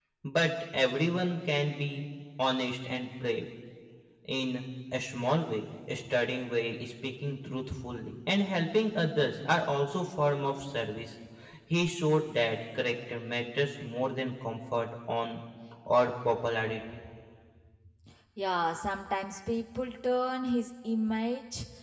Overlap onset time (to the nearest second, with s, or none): none